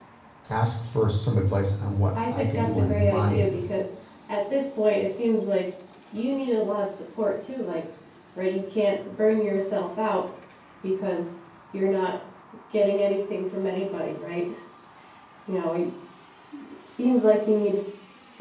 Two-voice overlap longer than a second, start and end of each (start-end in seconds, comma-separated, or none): 2.3-3.6